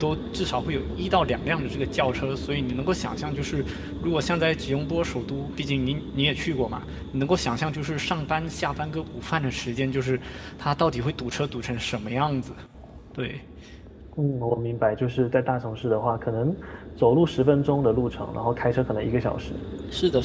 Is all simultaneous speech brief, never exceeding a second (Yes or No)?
Yes